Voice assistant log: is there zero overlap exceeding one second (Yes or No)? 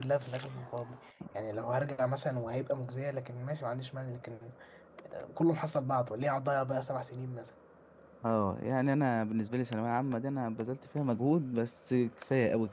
Yes